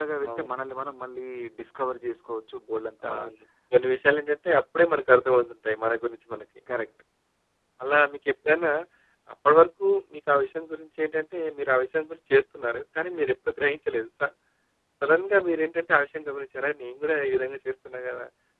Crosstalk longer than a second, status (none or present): none